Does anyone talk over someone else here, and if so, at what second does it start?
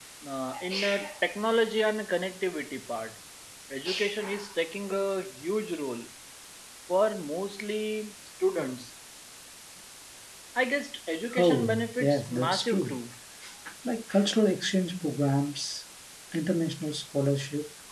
11.4 s

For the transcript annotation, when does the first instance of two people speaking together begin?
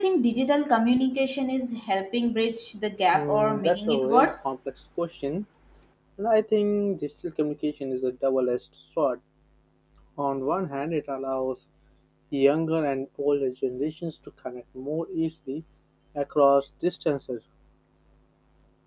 3.1 s

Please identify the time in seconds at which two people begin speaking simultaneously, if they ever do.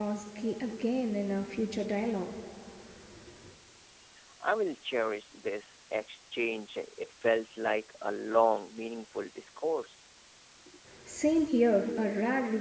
none

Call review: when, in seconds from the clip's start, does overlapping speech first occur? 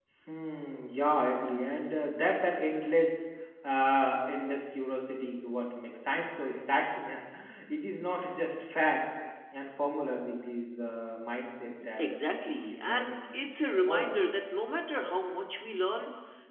12.0 s

